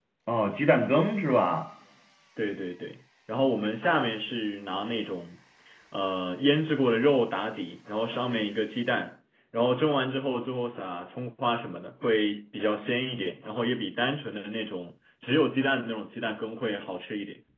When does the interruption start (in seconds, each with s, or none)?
none